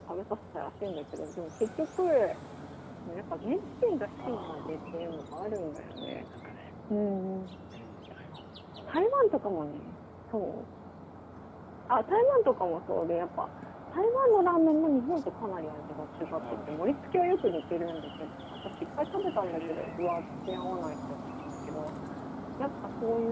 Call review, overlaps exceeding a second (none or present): present